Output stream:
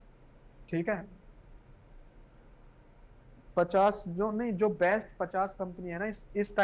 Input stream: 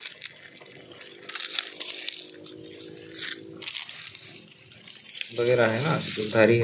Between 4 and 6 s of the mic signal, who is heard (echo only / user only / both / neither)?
user only